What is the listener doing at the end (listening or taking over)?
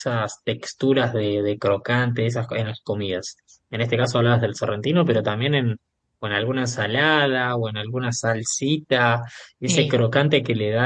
listening